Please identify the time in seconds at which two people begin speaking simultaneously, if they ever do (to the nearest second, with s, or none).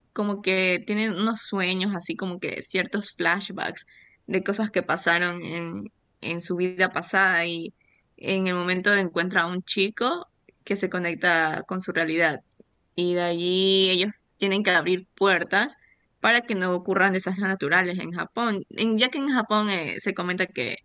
none